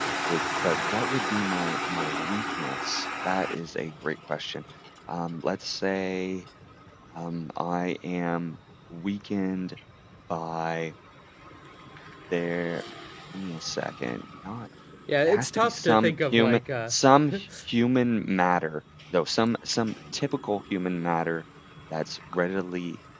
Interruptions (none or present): present